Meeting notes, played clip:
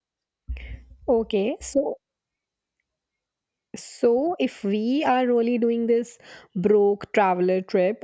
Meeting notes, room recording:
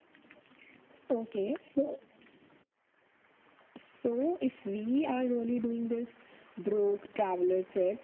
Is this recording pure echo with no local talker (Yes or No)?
Yes